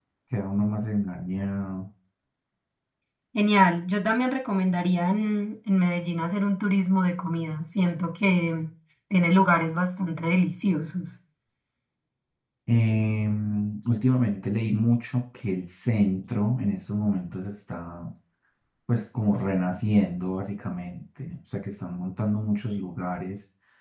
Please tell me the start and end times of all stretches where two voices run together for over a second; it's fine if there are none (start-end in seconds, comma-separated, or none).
none